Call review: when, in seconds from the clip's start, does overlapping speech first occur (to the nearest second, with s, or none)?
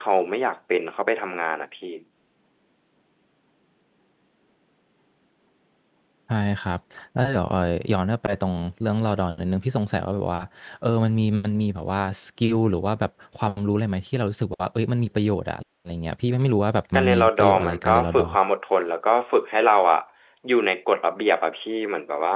17 s